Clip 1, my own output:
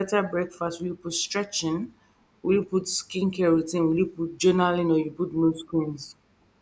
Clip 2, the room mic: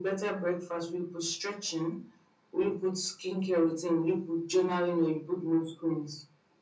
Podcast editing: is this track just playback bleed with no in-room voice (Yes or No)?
Yes